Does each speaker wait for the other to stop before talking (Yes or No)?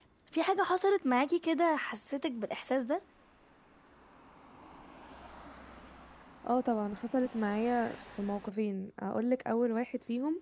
Yes